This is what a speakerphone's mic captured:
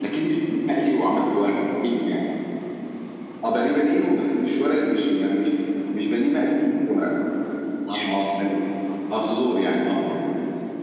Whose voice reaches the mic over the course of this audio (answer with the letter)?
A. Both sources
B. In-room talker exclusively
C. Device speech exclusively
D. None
C